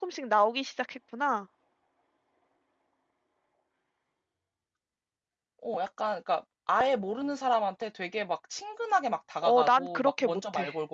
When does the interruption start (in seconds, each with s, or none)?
9.4 s